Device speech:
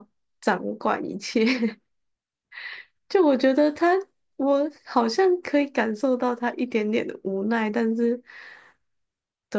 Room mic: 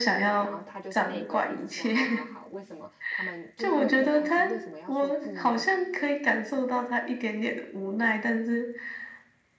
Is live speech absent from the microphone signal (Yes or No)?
No